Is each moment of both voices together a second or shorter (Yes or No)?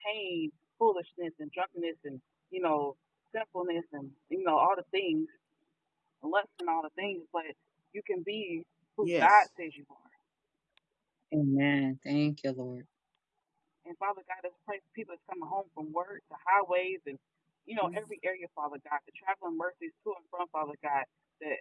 Yes